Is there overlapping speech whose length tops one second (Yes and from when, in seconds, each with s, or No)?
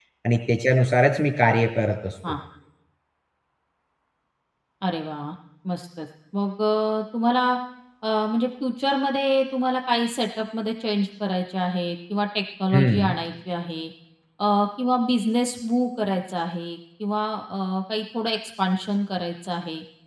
No